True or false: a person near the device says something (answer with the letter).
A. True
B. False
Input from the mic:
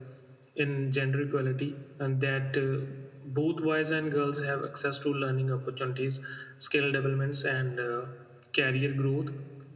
B